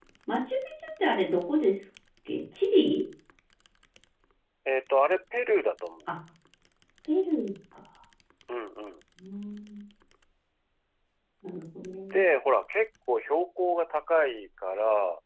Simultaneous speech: No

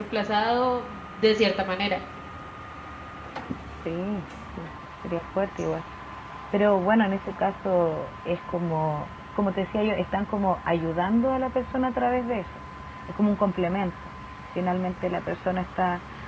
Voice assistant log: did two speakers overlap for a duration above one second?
No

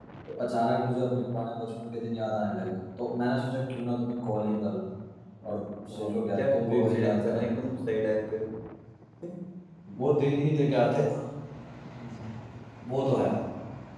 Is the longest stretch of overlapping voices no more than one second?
No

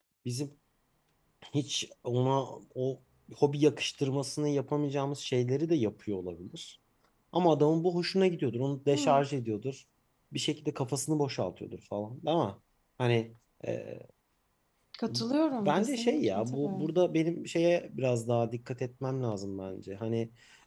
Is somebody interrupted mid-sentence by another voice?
Yes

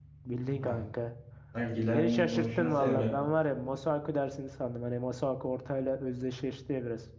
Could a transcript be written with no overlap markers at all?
No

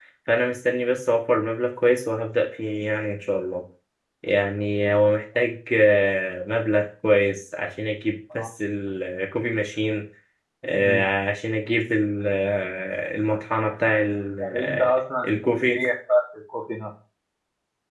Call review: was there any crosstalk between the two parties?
Yes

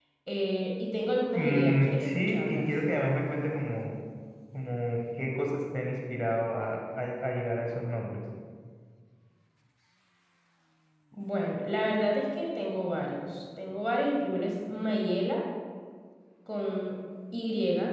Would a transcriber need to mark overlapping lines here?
Yes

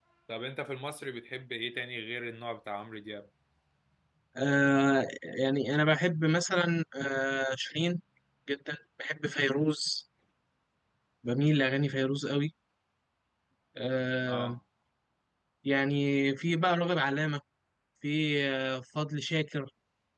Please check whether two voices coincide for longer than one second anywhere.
No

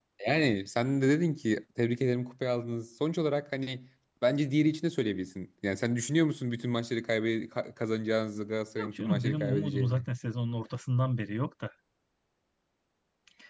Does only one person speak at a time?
No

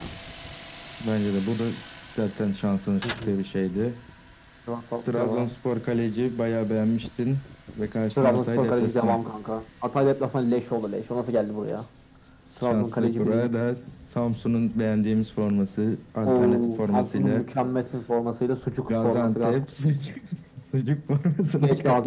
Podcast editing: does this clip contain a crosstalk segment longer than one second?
Yes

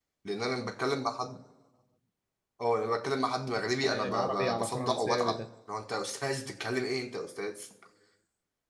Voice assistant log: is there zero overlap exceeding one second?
No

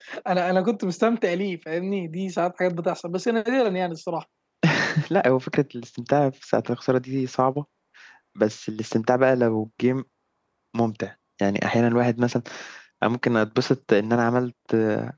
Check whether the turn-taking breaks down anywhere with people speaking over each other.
No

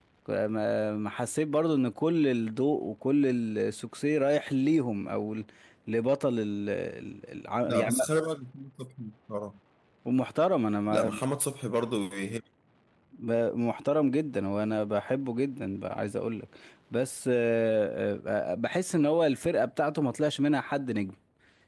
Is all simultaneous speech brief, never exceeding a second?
Yes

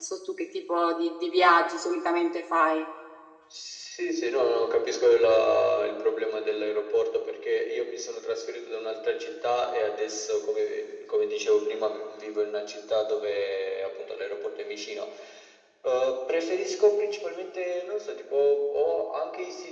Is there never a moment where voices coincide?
Yes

